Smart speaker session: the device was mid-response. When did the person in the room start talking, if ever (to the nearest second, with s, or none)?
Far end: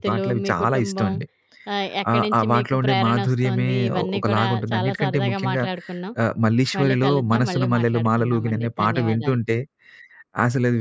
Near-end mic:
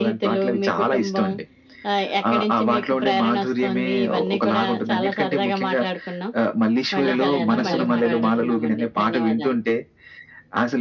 7 s